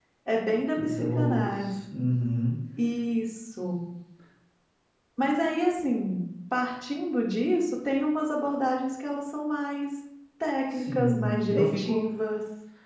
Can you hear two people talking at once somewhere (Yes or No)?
Yes